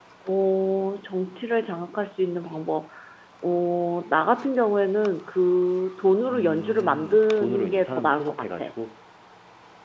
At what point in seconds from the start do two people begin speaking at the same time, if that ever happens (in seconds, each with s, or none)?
6.3 s